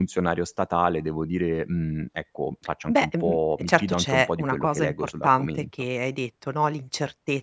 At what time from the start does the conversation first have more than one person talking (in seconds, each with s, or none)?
2.9 s